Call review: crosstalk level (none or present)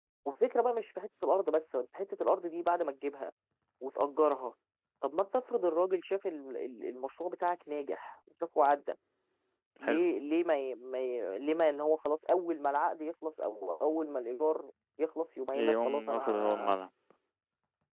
present